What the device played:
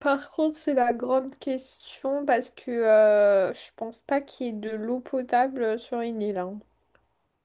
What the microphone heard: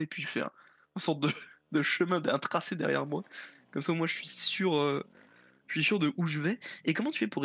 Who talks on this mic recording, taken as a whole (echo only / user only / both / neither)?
user only